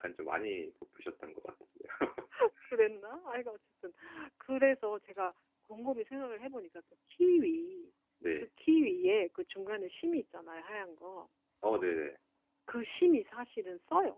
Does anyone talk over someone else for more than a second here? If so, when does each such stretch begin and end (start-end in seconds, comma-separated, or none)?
none